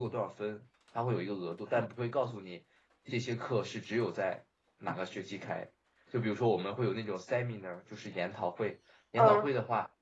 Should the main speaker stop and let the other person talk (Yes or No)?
No